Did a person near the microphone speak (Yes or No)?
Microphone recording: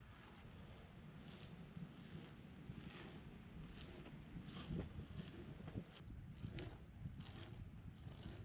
No